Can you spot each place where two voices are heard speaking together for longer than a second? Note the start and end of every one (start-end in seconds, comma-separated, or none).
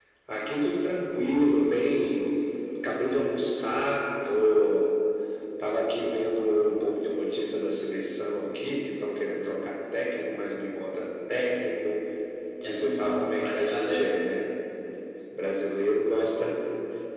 12.6-14.1